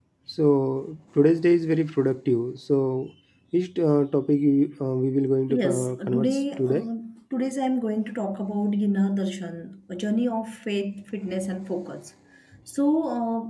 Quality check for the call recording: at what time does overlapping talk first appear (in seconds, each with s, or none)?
5.5 s